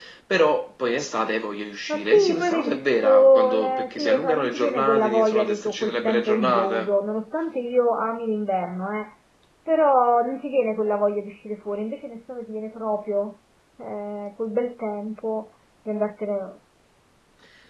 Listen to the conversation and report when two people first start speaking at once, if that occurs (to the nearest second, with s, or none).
2 s